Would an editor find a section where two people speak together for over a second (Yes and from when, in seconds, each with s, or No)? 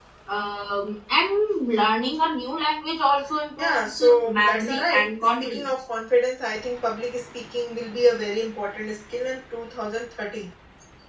Yes, from 3.6 s